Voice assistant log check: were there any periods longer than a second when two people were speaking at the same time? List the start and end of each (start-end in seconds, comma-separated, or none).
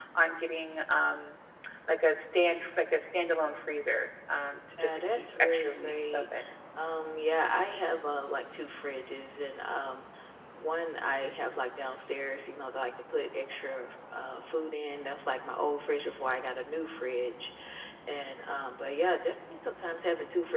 4.8-6.2